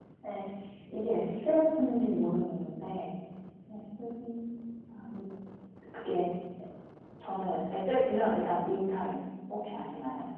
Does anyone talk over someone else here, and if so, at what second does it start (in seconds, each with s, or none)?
none